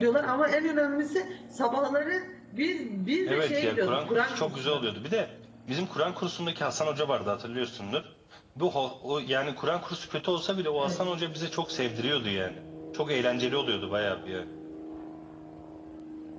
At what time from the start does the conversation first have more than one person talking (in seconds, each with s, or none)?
3.3 s